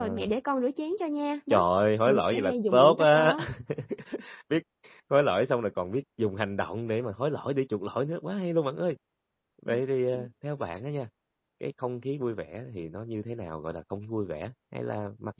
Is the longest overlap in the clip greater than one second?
Yes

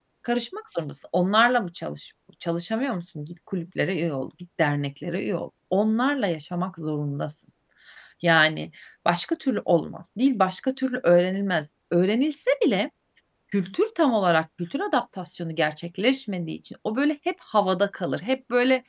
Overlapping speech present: No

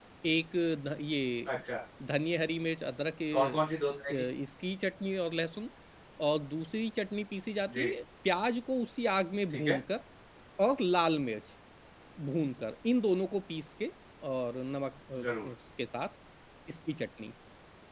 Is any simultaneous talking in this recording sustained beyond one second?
No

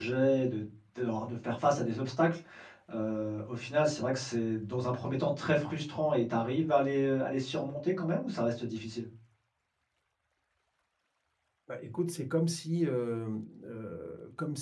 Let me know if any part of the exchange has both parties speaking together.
No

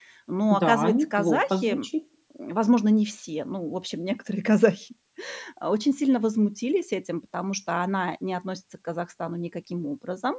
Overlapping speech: Yes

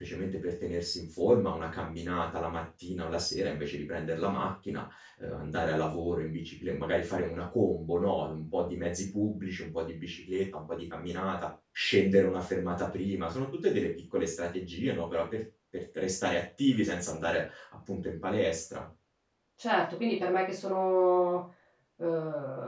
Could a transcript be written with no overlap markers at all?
Yes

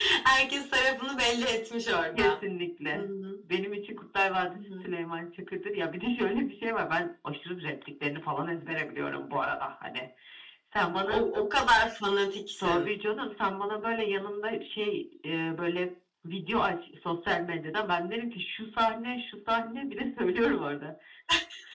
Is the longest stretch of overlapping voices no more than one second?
Yes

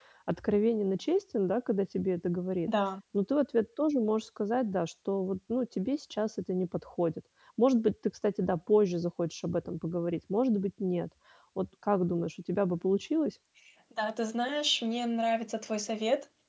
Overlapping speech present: No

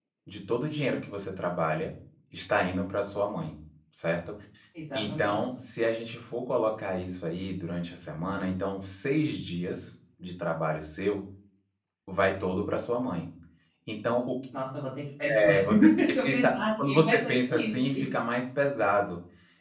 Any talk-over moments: Yes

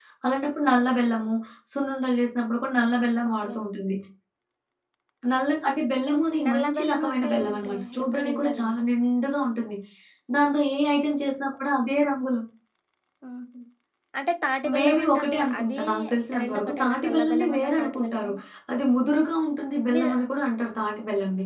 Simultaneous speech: Yes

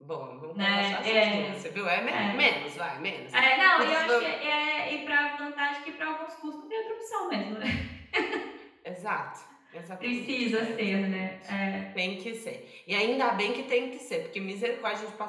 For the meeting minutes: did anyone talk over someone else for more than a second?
Yes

